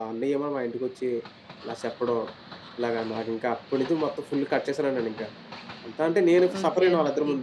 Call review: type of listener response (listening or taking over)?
taking over